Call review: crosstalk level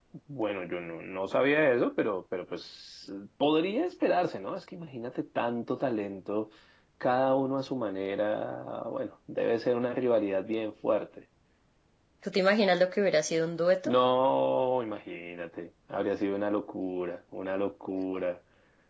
none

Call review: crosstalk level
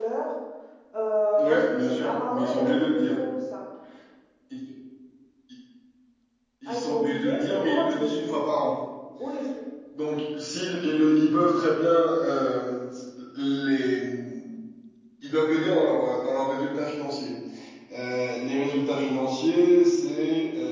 present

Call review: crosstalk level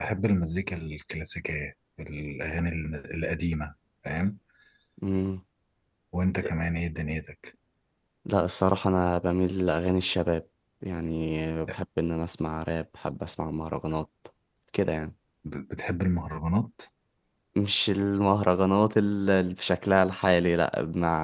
none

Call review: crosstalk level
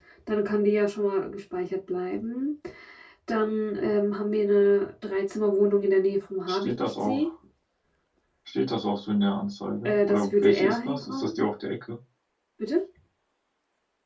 present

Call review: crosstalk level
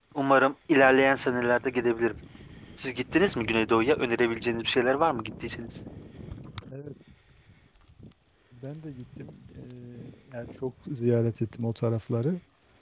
none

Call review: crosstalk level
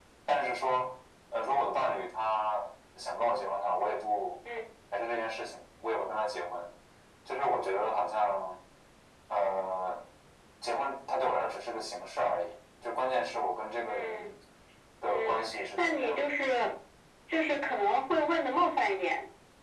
present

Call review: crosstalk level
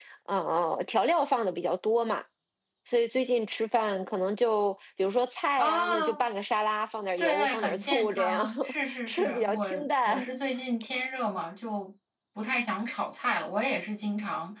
present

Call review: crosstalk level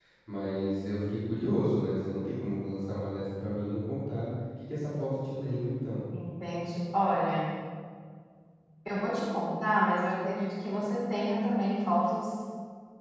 none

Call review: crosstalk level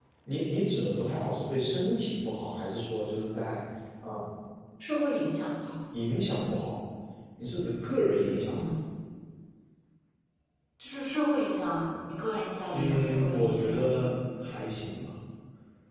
present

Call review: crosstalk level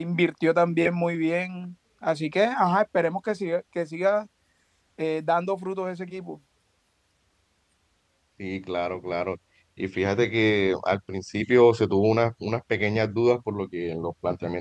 none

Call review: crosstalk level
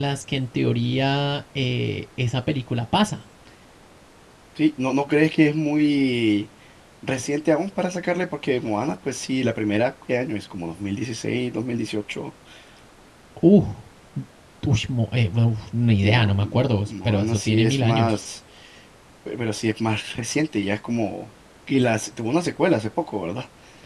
present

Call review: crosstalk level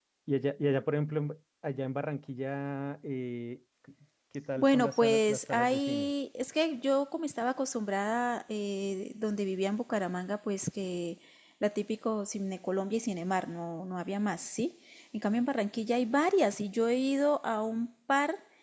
present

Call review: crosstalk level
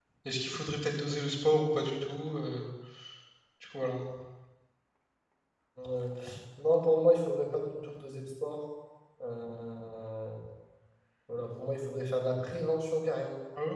none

